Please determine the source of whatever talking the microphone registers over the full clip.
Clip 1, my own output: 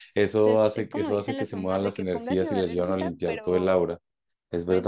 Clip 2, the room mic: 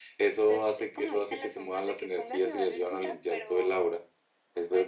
echo only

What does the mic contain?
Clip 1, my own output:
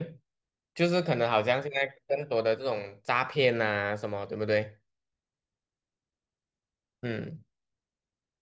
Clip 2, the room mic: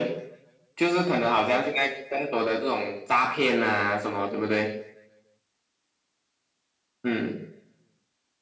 echo only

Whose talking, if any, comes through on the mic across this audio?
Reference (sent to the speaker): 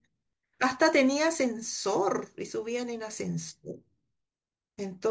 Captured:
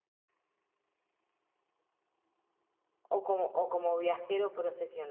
user only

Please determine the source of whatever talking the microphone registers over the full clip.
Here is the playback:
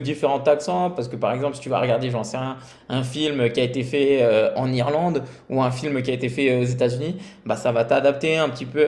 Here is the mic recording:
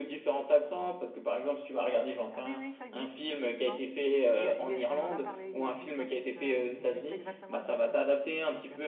both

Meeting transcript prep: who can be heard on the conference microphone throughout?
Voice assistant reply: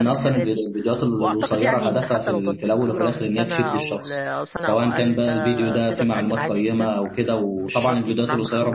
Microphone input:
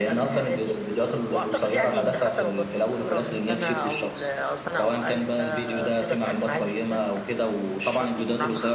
echo only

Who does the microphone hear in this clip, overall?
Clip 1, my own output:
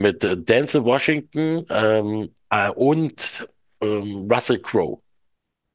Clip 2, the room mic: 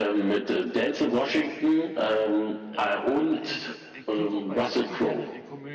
both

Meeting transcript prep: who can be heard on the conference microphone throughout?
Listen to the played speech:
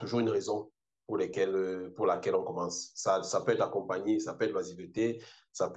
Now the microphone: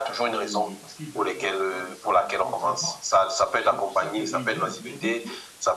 both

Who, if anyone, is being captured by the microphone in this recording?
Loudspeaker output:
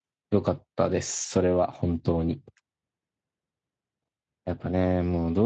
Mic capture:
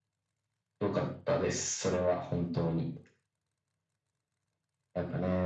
echo only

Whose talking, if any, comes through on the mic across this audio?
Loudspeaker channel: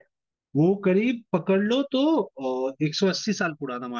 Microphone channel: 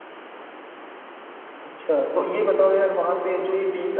user only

